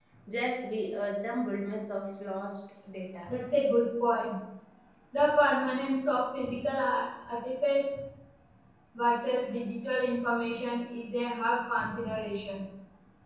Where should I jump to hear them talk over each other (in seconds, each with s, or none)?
none